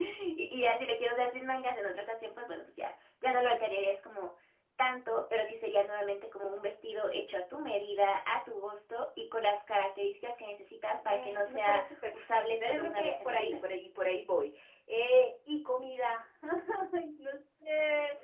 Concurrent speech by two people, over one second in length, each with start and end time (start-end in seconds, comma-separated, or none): 11.1-13.6